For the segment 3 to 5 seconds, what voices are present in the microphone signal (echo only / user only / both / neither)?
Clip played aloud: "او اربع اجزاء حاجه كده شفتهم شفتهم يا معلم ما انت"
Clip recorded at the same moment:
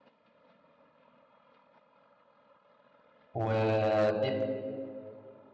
user only